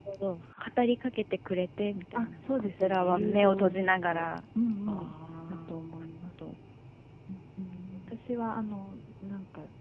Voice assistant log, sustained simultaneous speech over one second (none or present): present